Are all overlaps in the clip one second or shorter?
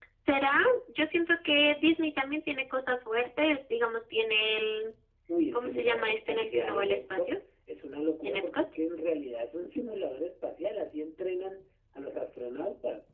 No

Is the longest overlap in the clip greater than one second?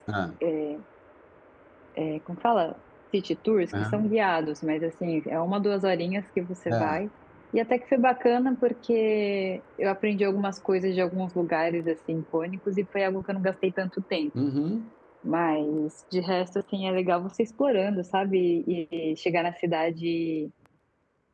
No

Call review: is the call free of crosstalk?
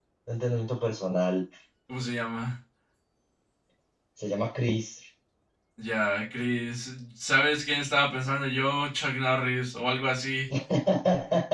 Yes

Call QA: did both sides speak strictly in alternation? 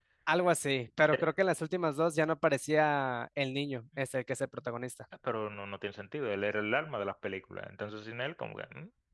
Yes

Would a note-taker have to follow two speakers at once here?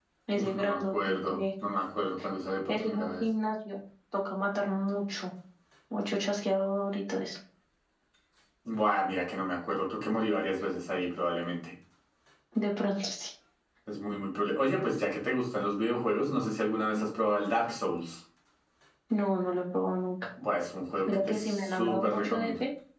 Yes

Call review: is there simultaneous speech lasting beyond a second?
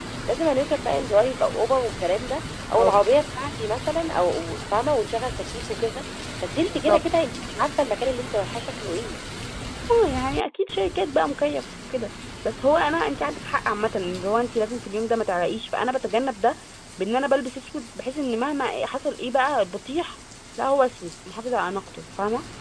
No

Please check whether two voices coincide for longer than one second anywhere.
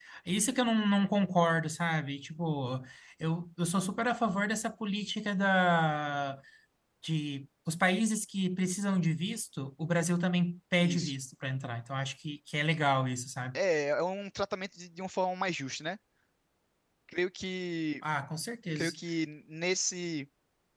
No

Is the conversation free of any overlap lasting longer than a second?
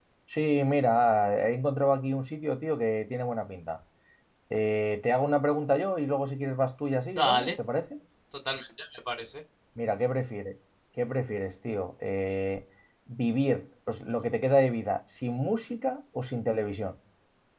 Yes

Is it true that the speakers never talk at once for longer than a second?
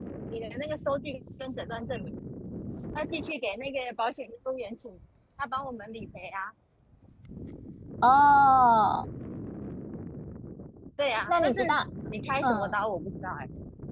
Yes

